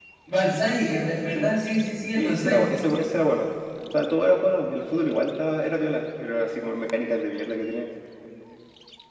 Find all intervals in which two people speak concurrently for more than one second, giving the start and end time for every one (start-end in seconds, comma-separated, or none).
none